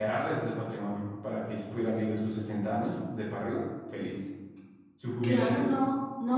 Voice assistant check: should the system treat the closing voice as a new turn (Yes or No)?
Yes